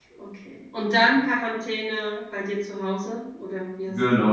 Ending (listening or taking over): taking over